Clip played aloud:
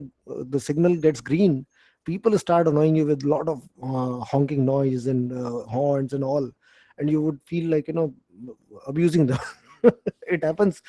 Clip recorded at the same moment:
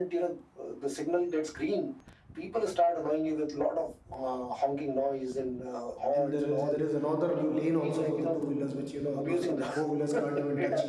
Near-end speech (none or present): present